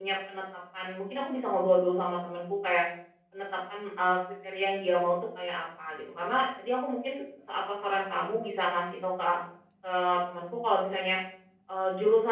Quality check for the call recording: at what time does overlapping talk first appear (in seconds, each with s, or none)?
none